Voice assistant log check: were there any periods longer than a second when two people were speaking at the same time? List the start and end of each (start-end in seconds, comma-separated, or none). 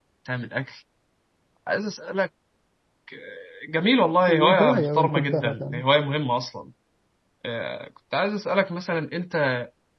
4.3-5.8